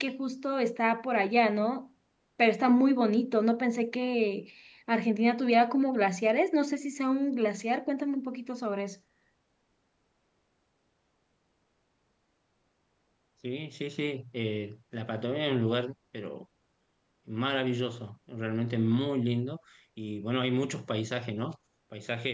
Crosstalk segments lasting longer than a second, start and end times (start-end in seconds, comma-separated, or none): none